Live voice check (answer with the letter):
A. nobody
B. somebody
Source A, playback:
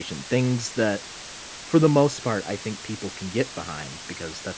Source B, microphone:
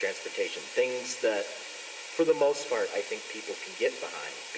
A